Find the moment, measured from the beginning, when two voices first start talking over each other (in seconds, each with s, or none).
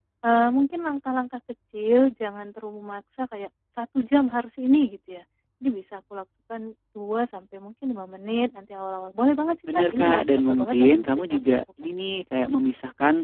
9.7 s